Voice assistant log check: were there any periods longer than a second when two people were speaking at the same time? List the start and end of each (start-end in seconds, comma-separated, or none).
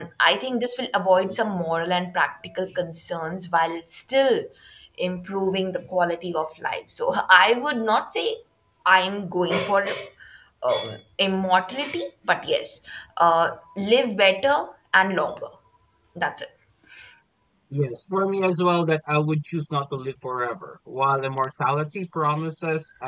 none